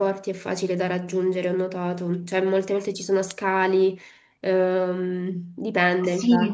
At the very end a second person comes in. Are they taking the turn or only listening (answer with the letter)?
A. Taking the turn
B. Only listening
A